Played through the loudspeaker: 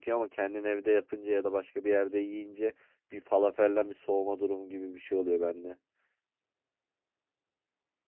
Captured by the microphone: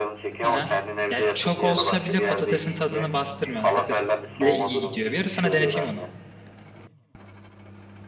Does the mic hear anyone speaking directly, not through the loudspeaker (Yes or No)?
Yes